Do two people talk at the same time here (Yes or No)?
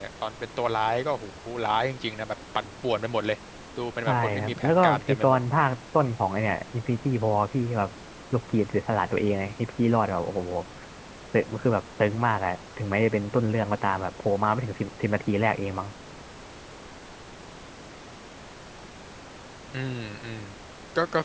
Yes